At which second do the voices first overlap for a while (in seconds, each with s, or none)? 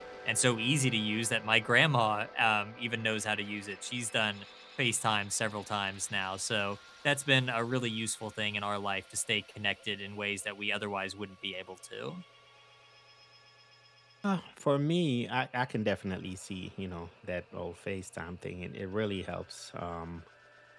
none